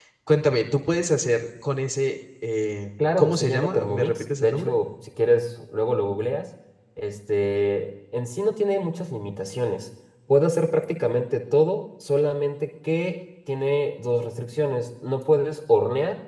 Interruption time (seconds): 3.0 s

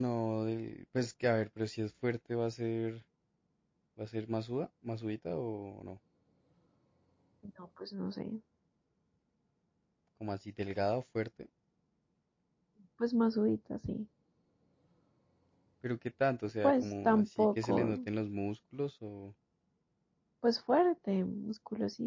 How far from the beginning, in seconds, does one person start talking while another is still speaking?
16.6 s

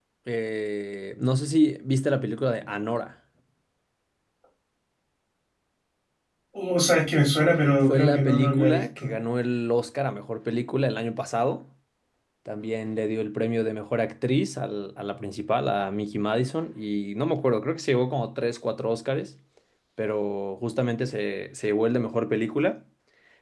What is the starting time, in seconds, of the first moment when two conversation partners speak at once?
7.9 s

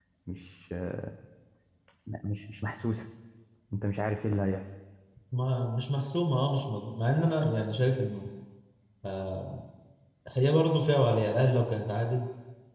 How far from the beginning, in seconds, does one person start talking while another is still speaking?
none

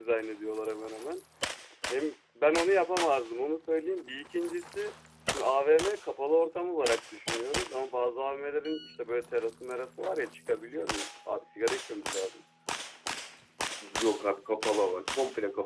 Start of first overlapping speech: none

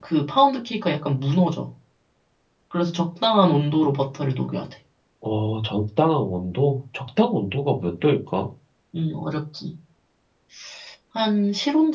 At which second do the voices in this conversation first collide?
none

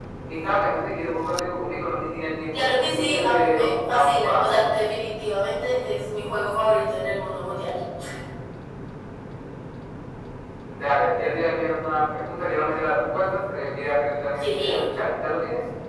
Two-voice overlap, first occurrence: 2.5 s

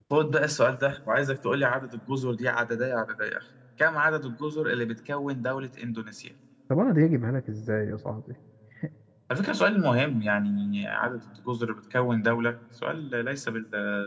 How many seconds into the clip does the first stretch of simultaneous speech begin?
none

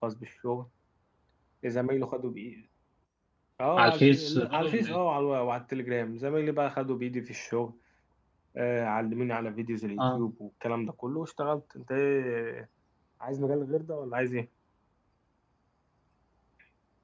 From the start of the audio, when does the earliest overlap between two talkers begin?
3.8 s

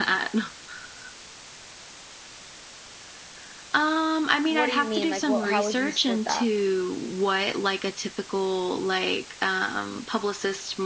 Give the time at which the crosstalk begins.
4.5 s

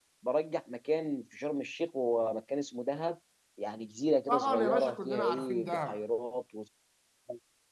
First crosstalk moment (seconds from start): 4.3 s

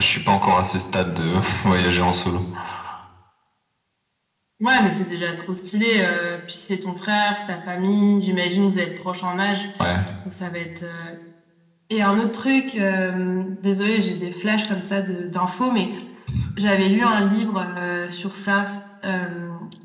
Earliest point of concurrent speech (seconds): none

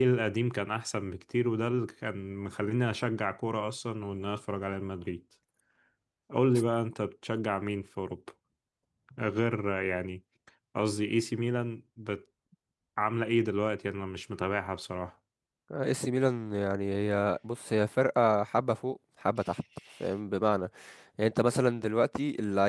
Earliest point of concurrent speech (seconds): none

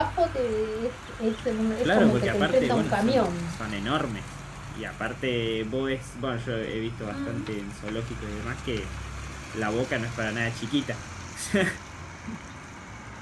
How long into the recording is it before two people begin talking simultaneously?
1.8 s

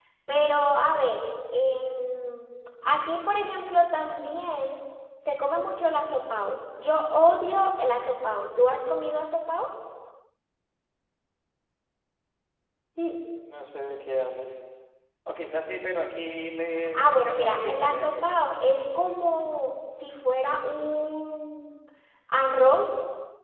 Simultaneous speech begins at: 16.9 s

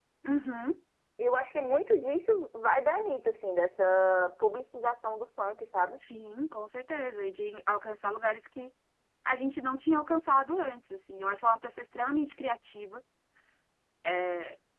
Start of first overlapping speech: none

